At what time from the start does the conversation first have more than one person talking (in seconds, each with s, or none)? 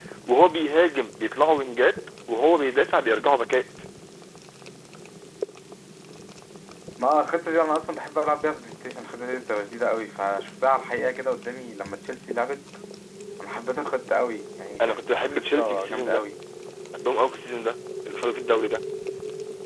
14.8 s